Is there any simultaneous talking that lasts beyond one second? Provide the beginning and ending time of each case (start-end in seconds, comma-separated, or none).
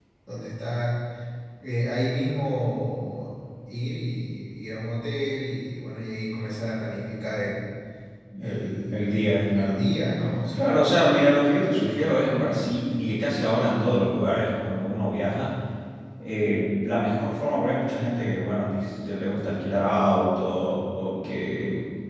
8.4-9.8